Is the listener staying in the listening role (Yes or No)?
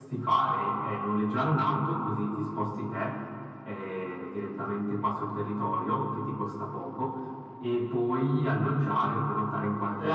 No